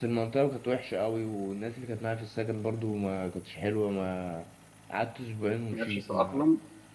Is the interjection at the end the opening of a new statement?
No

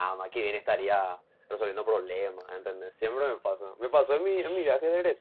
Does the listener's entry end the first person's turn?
No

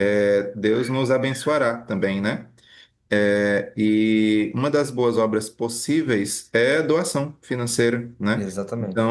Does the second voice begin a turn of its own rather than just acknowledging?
No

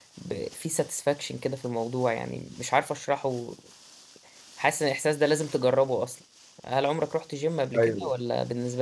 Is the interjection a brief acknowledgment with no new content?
Yes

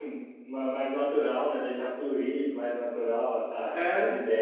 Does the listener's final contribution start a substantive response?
No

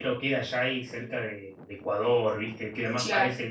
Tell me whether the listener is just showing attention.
Yes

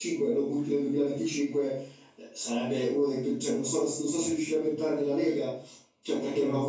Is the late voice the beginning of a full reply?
No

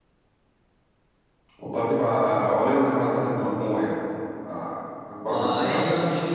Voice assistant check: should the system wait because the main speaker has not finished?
No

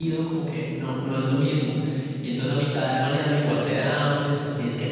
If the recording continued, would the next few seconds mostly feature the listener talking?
No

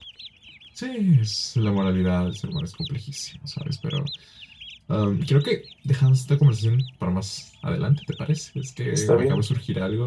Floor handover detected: No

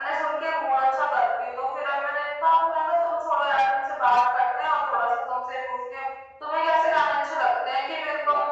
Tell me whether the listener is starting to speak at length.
No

